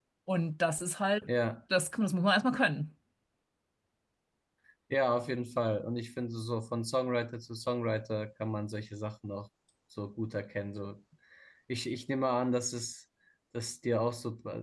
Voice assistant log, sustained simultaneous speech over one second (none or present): none